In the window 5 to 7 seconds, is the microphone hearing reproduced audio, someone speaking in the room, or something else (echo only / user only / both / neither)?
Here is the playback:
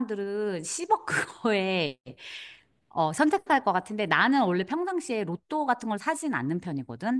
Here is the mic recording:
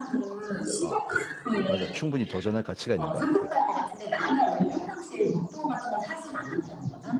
echo only